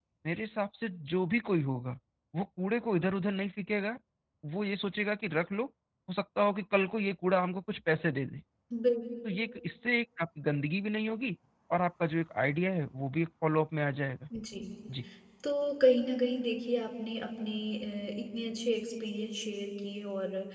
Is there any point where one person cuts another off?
No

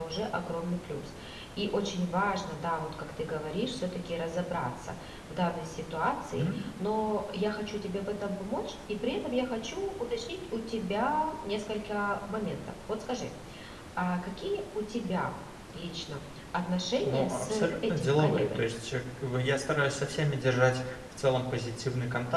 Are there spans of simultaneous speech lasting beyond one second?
Yes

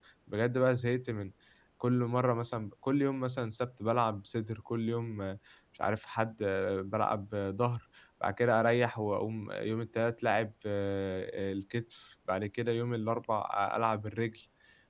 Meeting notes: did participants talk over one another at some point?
No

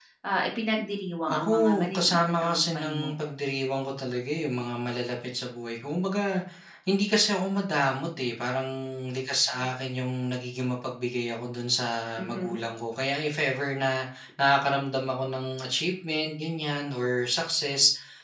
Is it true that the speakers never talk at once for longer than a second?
No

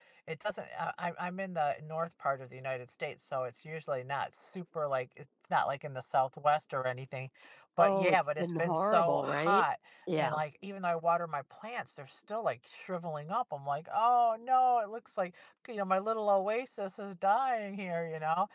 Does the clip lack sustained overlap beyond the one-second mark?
No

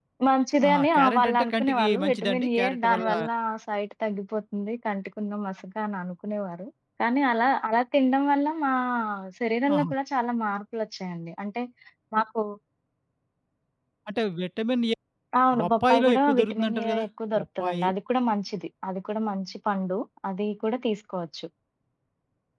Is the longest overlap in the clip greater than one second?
Yes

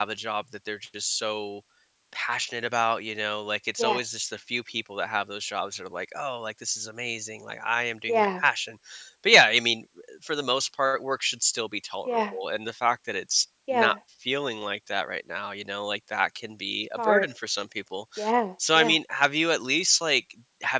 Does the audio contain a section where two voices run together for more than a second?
No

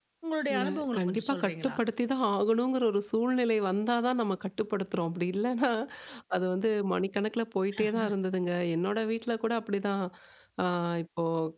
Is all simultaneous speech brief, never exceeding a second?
No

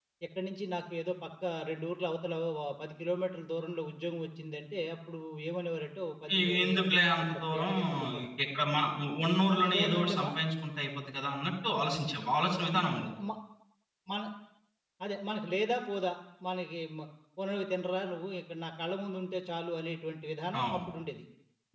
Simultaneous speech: Yes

